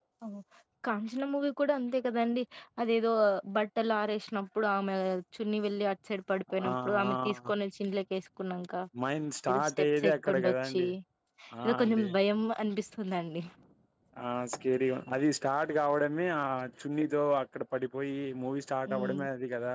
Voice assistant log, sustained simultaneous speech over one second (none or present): present